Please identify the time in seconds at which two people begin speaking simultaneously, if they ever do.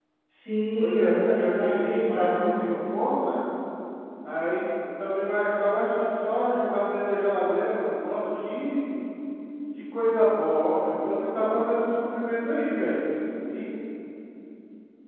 1 s

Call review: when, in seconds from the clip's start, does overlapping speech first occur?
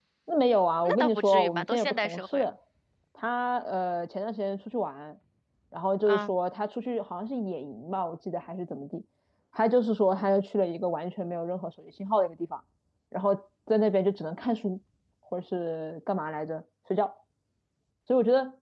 1 s

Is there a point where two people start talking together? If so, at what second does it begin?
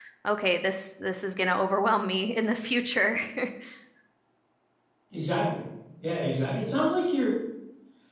none

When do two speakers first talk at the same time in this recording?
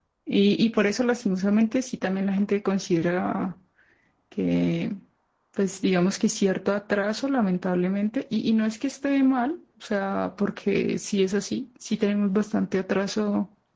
none

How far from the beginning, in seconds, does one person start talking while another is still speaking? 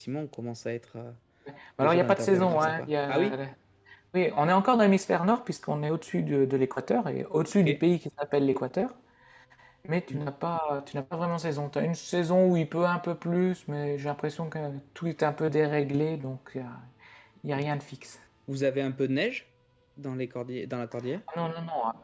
2 s

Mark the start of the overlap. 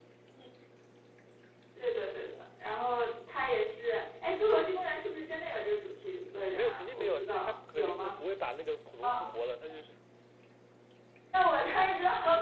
7 s

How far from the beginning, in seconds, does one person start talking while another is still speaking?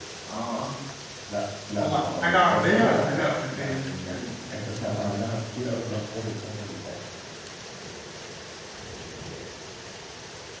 2 s

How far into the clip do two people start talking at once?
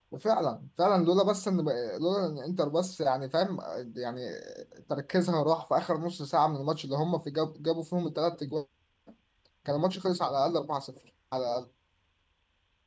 none

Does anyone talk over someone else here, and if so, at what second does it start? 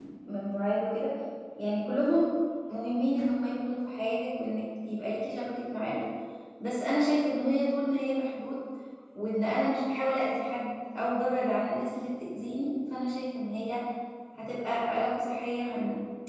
none

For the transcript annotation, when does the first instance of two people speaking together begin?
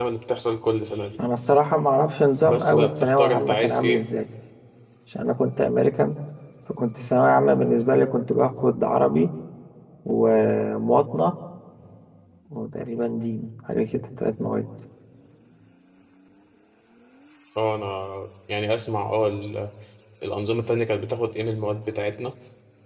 2 s

